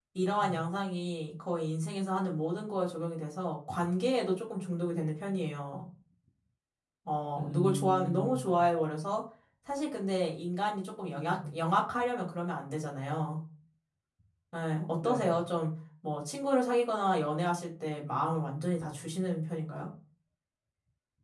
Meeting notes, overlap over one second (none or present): present